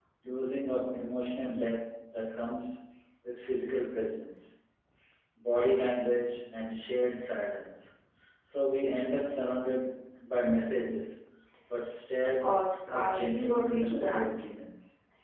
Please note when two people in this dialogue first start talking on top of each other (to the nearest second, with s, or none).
12 s